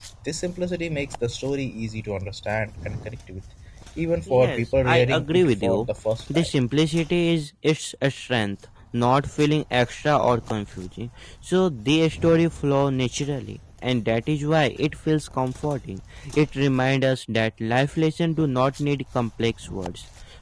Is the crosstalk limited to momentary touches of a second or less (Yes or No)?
No